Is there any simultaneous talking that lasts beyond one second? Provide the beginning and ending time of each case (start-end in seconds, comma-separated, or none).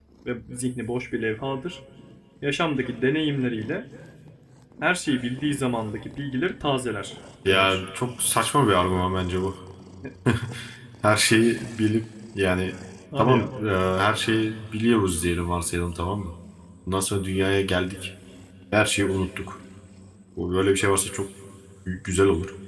none